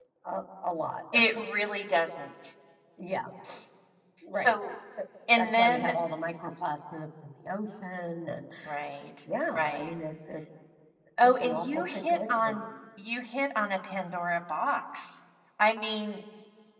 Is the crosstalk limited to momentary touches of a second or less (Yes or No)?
No